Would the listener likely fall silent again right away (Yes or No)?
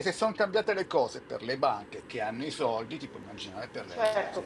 No